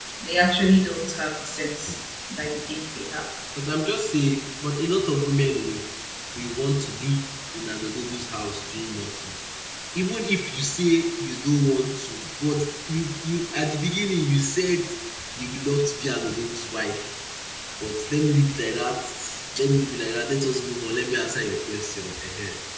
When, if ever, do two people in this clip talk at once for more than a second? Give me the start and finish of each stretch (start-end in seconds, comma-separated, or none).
none